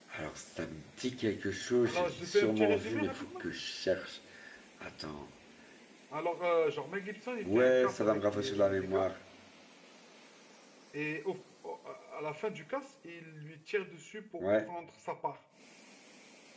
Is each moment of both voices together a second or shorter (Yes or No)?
No